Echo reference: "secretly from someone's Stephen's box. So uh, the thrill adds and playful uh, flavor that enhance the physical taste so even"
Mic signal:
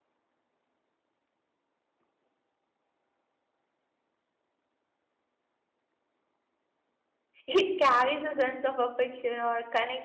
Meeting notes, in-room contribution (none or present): present